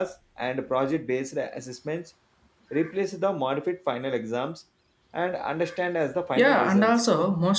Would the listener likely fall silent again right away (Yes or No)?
No